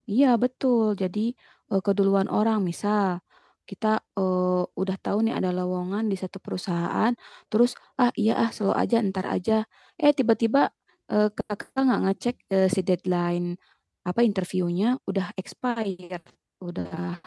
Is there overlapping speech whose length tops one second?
No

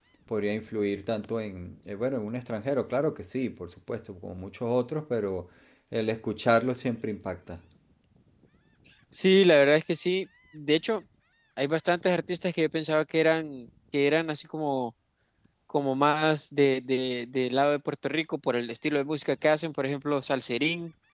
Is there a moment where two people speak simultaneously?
No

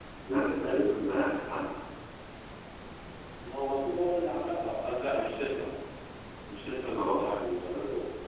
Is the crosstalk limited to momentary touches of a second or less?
Yes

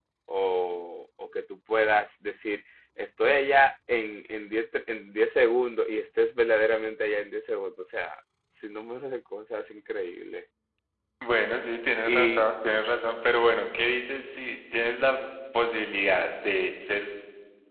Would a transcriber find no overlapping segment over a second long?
Yes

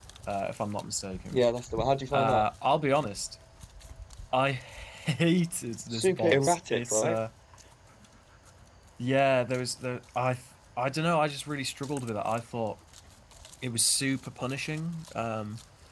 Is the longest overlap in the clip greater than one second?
Yes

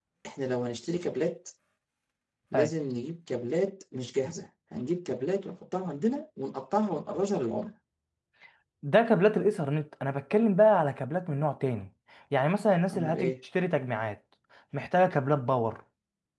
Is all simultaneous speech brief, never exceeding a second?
Yes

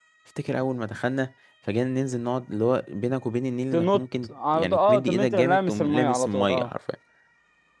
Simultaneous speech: Yes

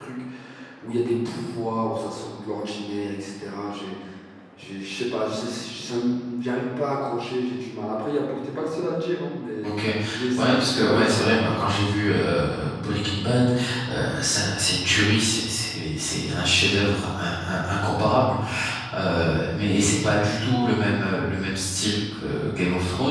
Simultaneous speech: Yes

